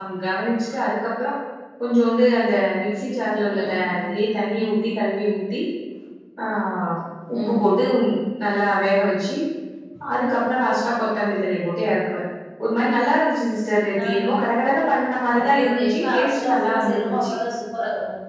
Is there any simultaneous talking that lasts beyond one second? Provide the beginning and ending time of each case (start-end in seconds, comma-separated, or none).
15.3-17.3